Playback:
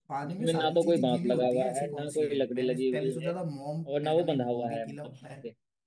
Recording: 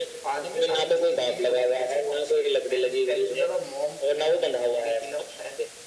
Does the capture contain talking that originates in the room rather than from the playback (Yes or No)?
No